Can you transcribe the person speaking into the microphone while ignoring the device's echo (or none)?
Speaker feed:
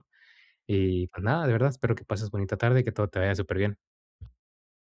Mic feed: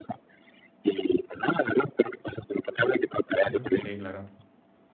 Ujú, sí, claro.